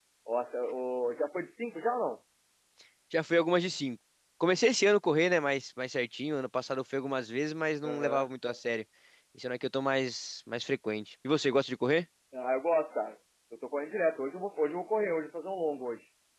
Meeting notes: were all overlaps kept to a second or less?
Yes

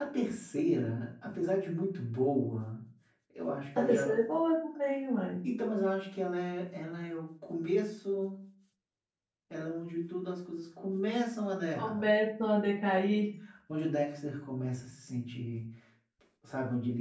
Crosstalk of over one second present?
No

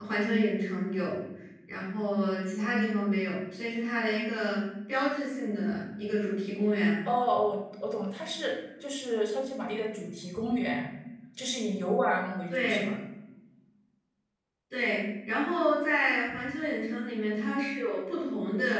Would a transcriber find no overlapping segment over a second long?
Yes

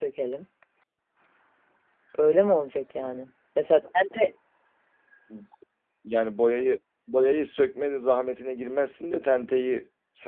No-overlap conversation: Yes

